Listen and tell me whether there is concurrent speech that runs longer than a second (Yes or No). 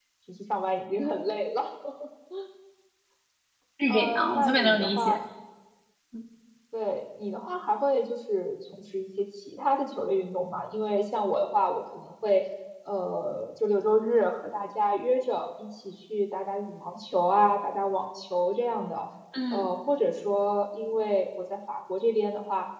Yes